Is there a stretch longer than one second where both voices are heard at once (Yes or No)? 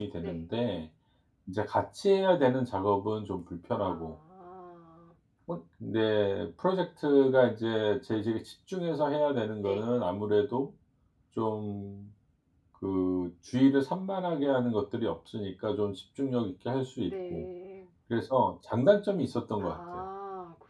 No